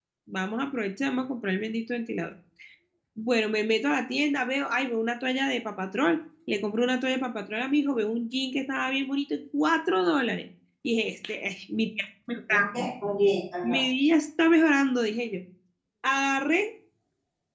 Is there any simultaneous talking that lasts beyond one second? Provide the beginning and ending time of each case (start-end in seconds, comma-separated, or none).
none